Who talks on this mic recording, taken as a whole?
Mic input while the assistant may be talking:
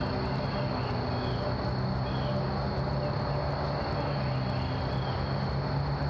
neither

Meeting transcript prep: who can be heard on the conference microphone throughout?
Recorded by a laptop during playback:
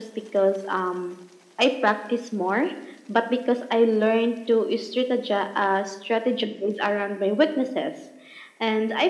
echo only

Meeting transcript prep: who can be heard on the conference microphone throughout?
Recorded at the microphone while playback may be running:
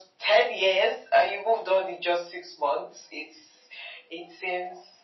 echo only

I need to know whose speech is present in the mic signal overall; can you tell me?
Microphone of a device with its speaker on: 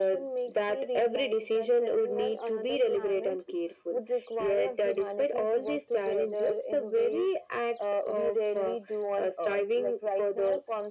echo only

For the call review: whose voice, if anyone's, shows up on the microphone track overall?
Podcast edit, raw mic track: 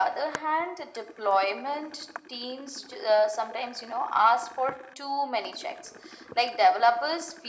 echo only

